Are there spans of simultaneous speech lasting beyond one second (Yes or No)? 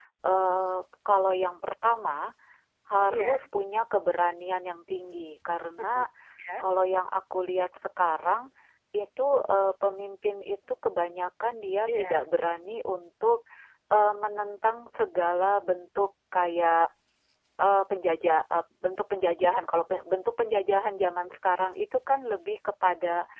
No